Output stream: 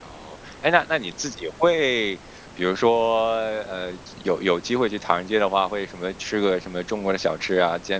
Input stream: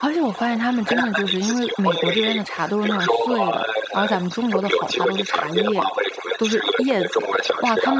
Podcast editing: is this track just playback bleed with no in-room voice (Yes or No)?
No